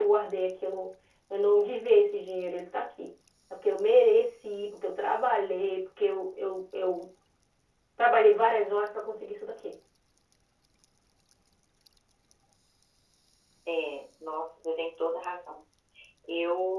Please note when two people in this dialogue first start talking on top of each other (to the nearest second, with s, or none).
none